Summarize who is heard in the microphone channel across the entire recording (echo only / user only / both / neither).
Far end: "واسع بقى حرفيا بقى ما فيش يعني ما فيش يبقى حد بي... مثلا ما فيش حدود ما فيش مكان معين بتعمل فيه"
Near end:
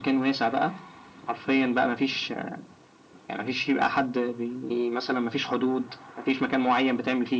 echo only